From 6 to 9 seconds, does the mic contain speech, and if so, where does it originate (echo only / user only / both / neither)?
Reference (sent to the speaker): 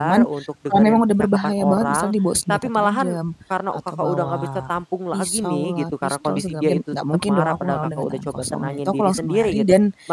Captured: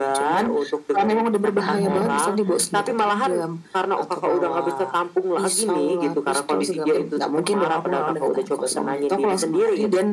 echo only